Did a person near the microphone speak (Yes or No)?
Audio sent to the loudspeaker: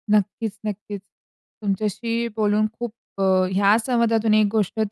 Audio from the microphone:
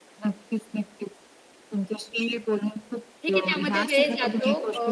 Yes